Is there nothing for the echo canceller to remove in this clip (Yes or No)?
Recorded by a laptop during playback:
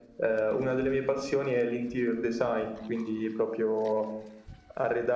No